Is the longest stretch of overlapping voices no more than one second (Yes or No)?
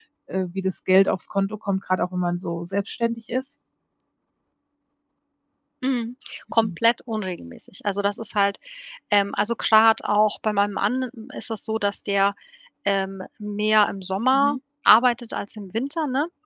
Yes